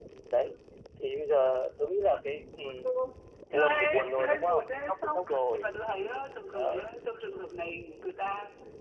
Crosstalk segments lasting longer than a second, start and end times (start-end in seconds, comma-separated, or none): 3.5-5.6